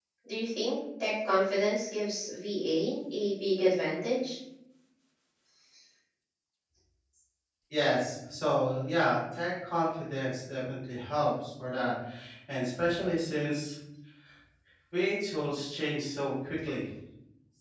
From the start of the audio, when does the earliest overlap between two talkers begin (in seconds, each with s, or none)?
none